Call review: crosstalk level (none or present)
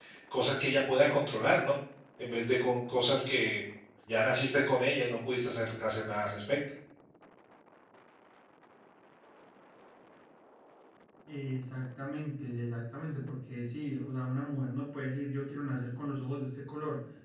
none